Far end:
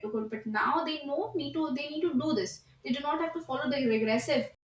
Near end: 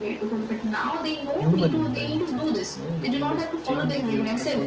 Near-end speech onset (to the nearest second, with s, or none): 1 s